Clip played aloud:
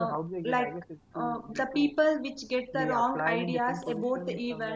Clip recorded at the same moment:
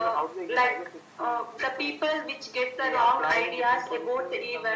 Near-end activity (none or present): none